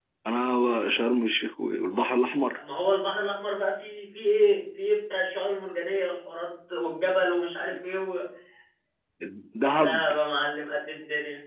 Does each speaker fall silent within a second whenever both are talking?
Yes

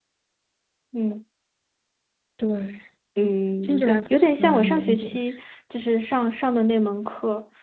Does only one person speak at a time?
No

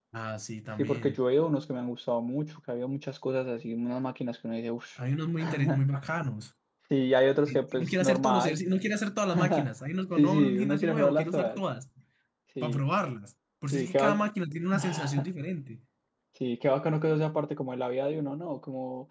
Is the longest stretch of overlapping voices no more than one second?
No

